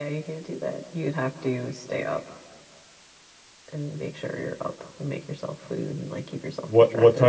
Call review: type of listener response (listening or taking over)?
taking over